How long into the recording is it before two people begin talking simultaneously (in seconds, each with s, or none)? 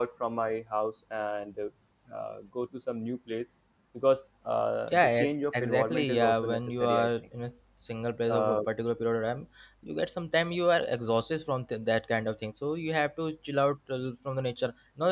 4.9 s